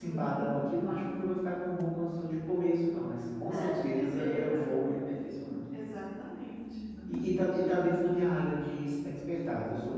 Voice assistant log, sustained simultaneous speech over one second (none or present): present